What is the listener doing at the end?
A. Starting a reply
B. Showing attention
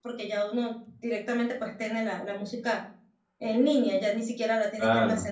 A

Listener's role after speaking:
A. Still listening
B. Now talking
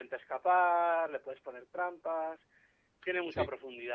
A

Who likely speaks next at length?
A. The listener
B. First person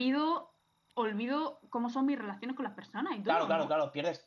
A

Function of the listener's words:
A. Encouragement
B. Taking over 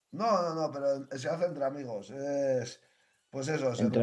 A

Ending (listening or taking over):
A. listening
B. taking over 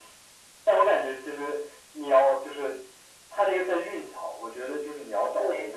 A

